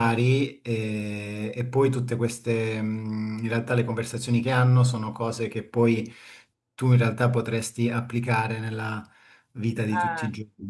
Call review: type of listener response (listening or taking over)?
listening